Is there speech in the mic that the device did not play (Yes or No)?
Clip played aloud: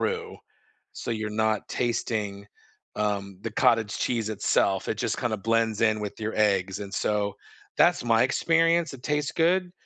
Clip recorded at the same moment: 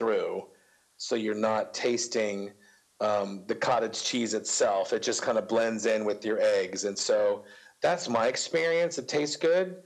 No